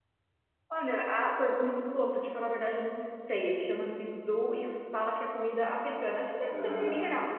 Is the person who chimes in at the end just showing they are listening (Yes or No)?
Yes